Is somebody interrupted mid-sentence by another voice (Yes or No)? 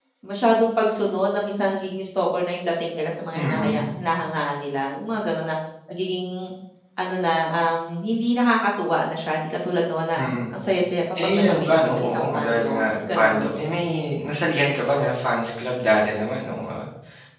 Yes